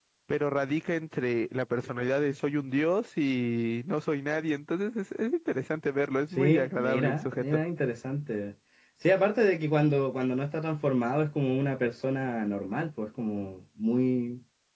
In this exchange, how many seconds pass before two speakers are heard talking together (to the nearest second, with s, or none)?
6 s